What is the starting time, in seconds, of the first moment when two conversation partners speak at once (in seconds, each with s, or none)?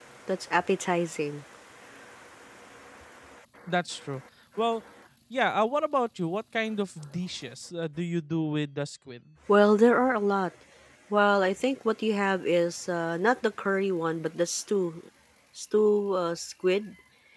none